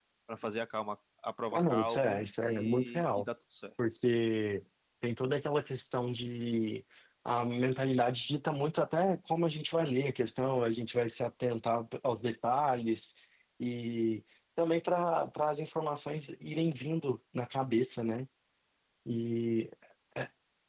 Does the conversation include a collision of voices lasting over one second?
Yes, from 1.5 s

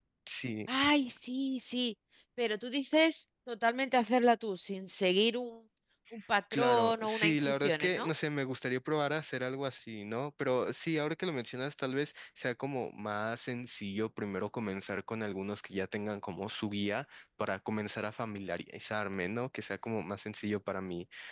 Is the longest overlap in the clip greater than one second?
Yes, from 6.5 s

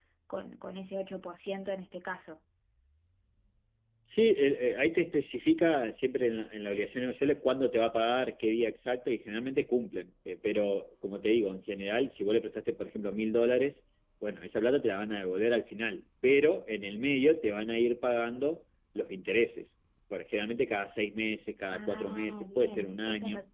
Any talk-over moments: Yes, from 21.7 s

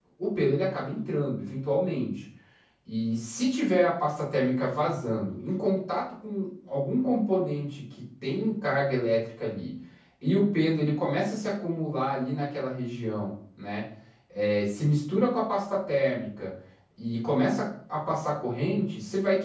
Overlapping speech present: No

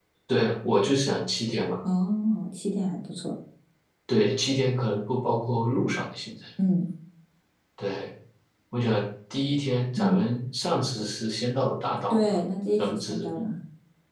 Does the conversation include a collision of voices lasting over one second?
No

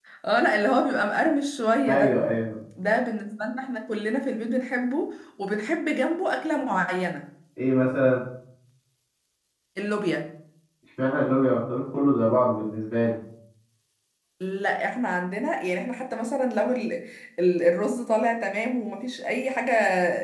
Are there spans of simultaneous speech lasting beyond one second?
No

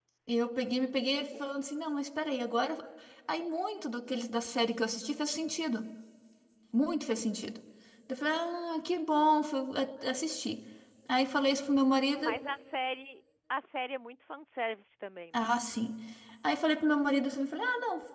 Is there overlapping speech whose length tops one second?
No

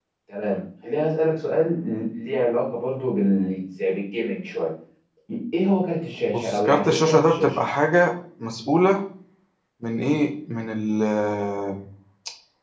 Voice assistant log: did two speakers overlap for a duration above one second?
Yes, from 6.3 s

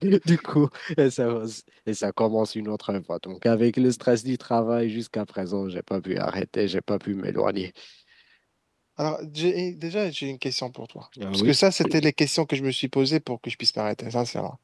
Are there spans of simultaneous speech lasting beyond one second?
No

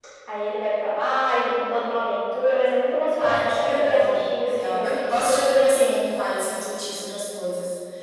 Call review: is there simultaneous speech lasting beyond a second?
Yes, from 3.2 s

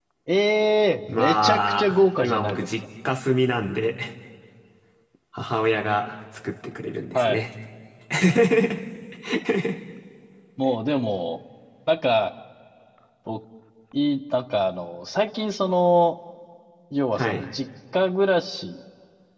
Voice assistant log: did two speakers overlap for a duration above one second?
Yes, from 1.1 s

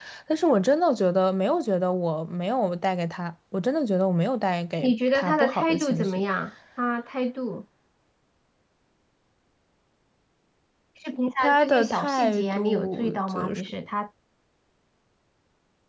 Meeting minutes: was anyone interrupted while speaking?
Yes, from 4.8 s

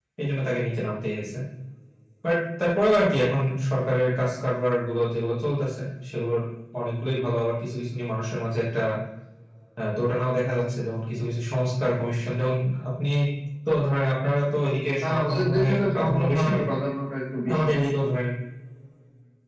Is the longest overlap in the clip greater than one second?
Yes, from 15.0 s

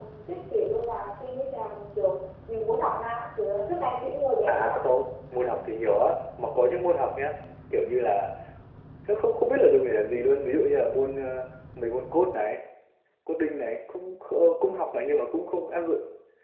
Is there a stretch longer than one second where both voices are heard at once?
No

